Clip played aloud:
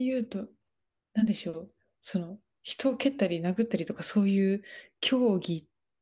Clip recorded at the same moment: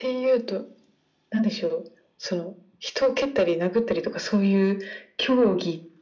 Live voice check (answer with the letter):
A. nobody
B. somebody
A